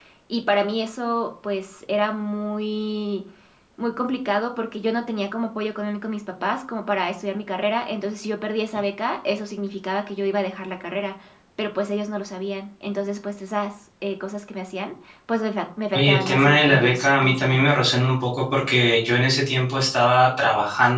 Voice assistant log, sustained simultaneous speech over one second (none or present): present